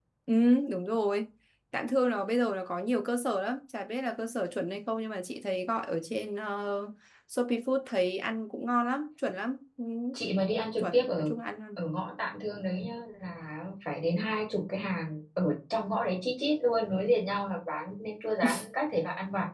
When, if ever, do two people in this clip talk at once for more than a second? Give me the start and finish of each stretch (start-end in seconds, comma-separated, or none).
none